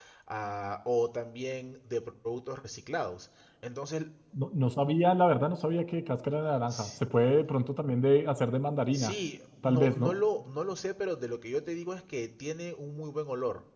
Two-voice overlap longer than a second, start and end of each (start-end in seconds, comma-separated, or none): none